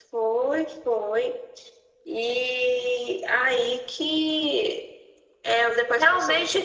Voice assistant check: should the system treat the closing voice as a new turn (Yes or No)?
Yes